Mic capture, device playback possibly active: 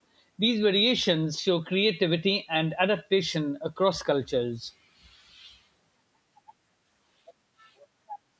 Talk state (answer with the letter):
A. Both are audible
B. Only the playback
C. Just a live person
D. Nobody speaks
C